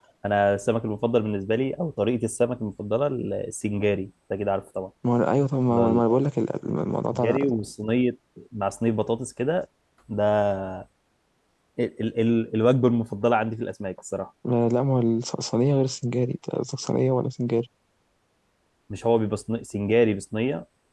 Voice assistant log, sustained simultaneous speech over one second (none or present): none